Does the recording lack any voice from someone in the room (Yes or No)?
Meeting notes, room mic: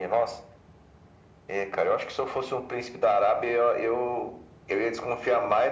Yes